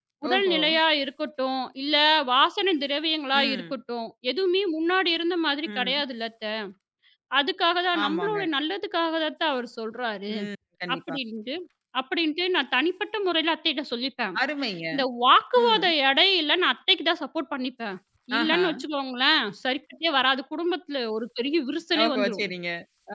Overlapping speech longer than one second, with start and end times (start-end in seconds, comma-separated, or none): none